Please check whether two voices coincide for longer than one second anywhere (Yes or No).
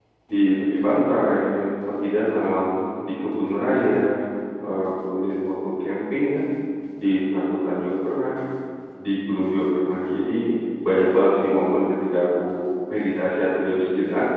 No